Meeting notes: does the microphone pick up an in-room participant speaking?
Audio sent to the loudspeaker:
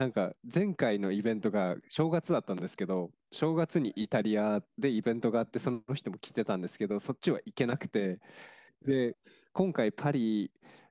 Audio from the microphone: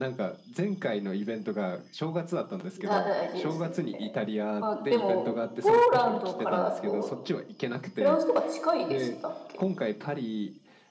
Yes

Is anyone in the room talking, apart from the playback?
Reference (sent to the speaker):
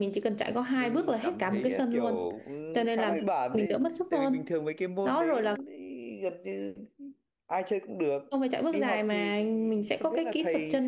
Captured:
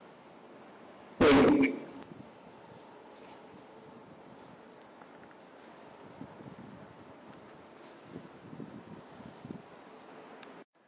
Yes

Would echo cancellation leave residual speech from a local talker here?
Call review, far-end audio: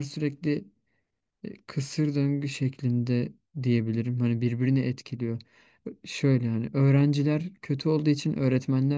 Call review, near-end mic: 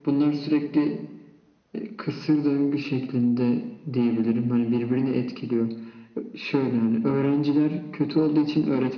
No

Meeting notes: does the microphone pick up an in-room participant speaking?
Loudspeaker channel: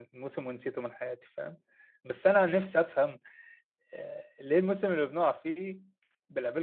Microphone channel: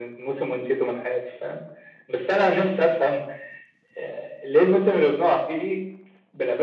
No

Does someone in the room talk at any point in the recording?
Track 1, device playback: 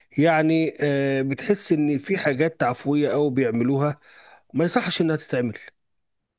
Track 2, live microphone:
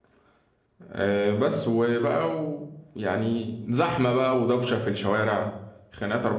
Yes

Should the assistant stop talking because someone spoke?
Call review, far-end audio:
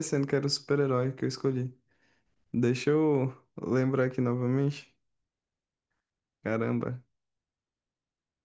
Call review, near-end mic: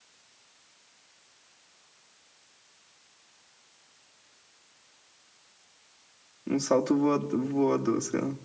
Yes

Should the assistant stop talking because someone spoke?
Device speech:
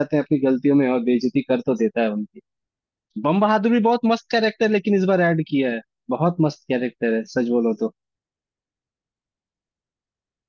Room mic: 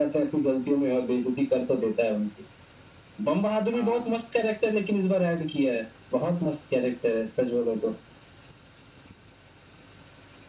Yes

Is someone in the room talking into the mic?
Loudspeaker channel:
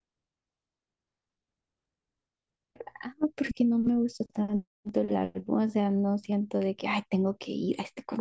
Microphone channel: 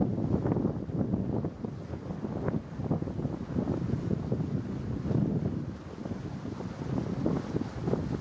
No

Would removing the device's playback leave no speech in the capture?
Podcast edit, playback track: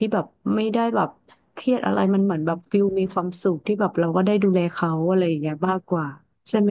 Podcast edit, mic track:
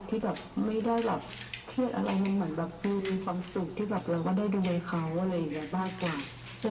Yes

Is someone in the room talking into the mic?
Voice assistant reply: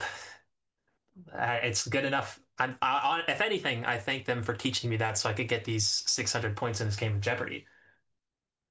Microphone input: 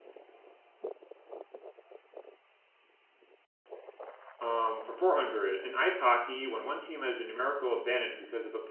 Yes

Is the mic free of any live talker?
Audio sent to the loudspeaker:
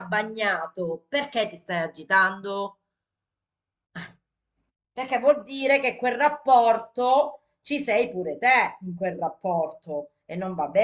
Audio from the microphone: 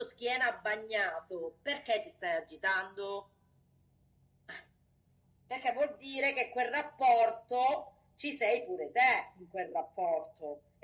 Yes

